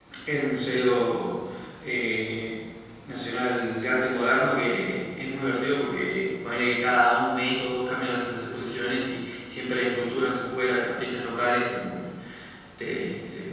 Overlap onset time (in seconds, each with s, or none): none